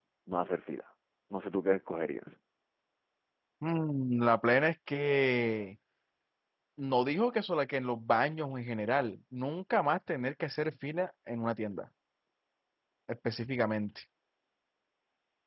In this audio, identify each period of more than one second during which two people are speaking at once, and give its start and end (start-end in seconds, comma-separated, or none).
none